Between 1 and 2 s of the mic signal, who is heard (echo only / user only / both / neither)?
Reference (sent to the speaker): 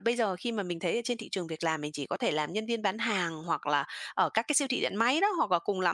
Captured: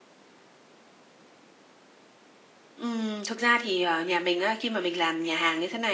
neither